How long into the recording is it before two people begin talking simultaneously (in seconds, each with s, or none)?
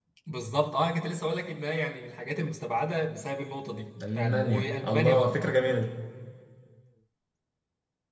4.0 s